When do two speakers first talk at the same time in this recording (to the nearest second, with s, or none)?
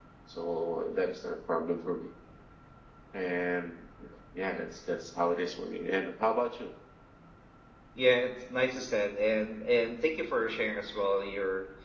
none